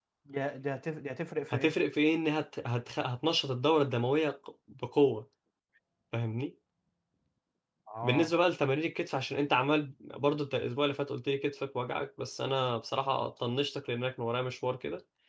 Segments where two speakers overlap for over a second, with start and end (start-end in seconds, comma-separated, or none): none